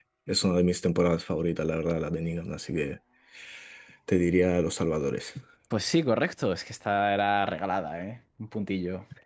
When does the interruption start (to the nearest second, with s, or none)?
none